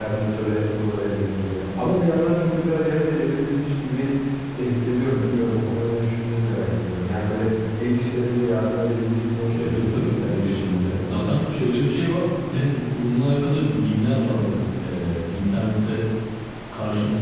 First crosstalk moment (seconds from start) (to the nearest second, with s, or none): 9 s